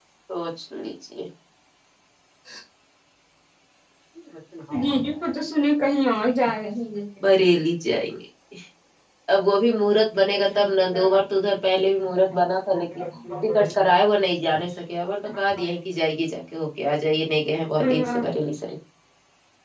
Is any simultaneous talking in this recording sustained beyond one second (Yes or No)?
No